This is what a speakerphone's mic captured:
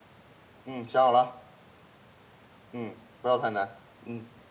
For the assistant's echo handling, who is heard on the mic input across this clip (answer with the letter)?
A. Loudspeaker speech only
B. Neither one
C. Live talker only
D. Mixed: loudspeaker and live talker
A